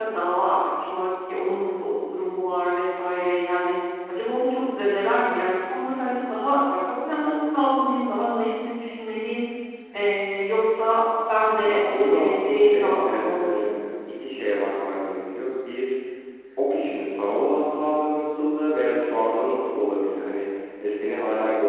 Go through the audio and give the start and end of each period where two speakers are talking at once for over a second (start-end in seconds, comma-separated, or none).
11.6-13.7